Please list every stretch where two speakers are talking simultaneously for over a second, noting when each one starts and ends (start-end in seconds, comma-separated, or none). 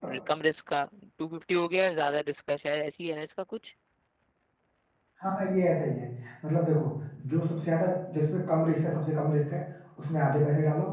none